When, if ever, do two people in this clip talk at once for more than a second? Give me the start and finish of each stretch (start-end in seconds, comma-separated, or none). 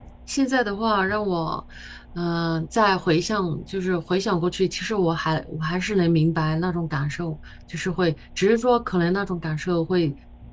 none